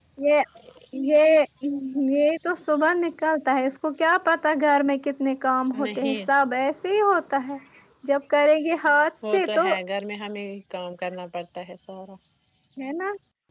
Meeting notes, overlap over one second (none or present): none